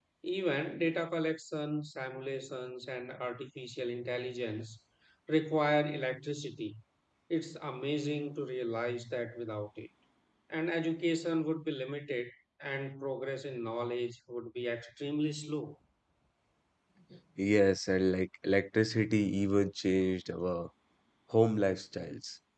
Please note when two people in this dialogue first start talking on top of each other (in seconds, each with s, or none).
none